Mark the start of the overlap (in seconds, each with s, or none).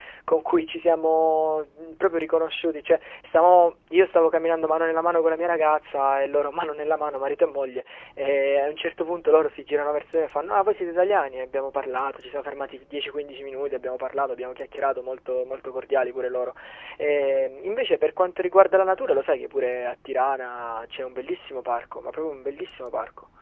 none